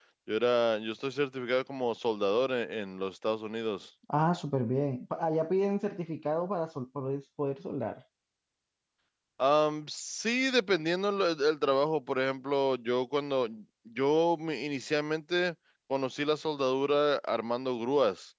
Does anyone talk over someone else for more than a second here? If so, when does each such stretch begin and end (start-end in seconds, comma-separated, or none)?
none